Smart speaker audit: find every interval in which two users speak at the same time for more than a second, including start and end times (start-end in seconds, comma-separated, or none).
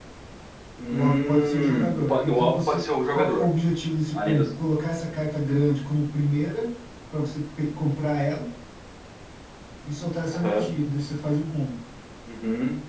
0.9-3.5